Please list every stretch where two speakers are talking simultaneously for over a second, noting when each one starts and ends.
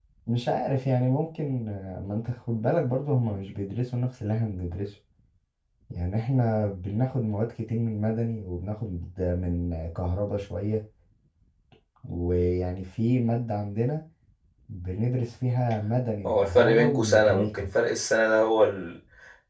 16.2-17.7

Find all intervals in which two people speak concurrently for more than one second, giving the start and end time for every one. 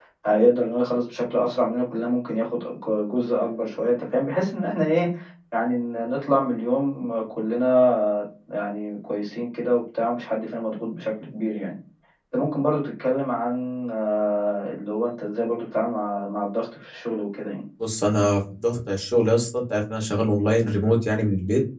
none

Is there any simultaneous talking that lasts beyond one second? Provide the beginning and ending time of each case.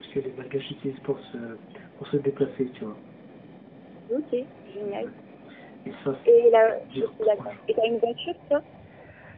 6.2-7.5

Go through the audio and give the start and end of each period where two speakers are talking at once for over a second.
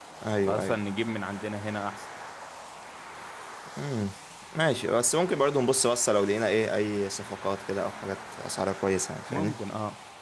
none

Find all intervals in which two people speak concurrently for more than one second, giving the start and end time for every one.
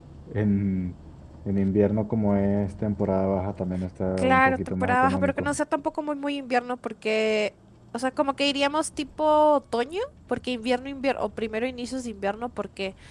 4.2-5.5

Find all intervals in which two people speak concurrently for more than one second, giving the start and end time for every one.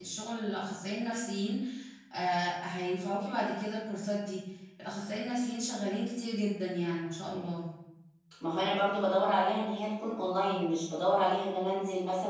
none

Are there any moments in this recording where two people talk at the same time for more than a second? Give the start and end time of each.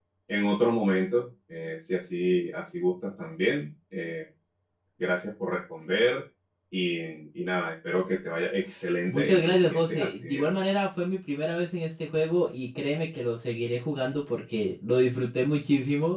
9.1-10.5

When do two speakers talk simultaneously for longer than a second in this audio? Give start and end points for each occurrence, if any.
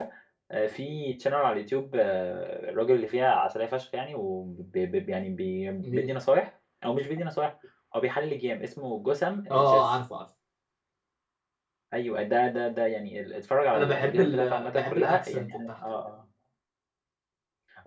13.7-15.7

